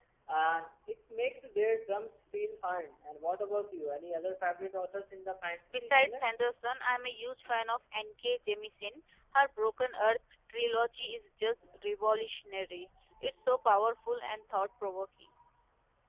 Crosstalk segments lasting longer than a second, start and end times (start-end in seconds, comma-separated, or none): none